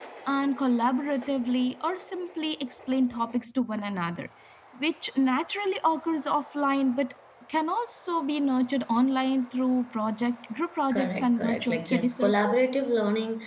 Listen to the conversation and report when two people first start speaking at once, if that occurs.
10.9 s

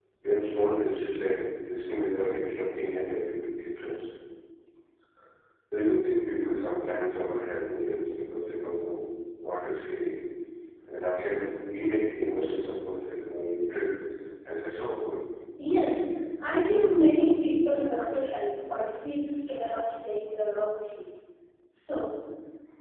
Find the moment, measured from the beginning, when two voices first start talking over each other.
none

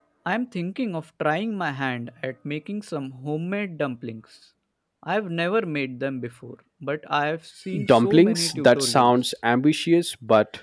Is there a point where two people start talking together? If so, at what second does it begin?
7.7 s

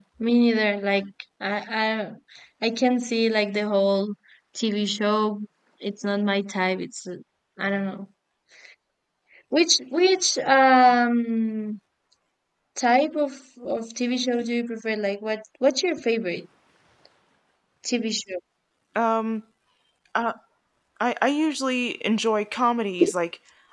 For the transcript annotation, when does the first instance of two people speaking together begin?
none

